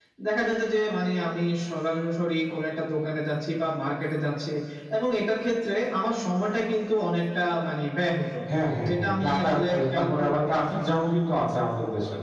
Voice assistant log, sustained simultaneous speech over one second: present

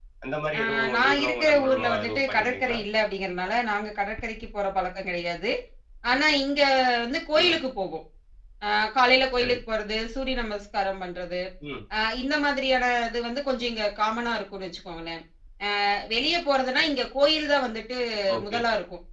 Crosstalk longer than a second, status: present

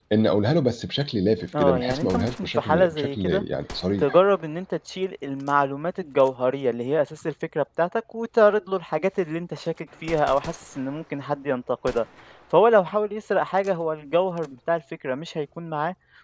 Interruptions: present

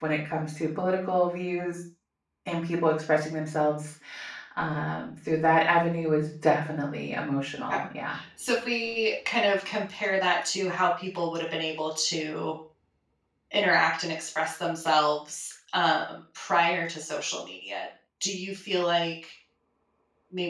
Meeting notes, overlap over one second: none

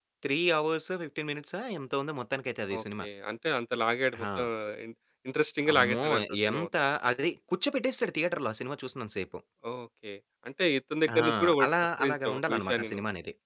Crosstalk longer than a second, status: present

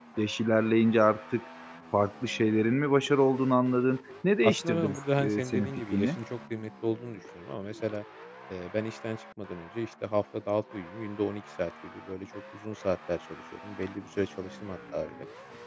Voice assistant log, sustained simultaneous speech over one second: present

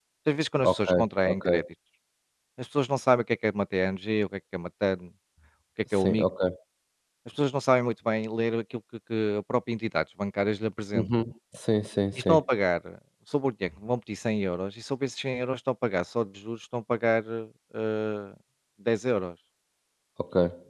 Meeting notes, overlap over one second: none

